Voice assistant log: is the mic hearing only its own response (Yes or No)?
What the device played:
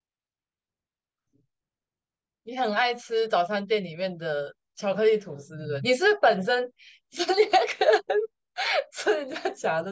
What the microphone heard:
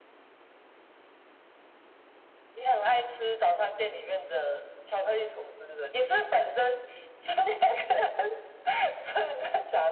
Yes